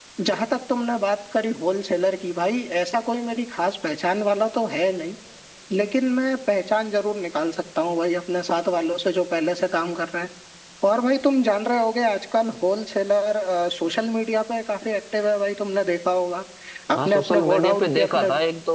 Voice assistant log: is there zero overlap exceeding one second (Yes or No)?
No